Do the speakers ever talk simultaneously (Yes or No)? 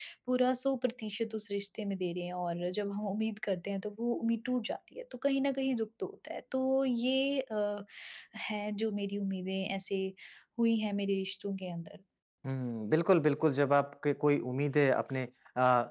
No